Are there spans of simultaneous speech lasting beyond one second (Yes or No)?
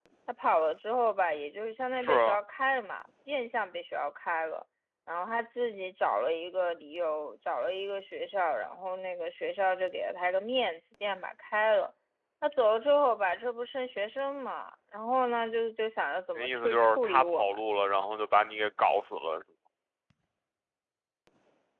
Yes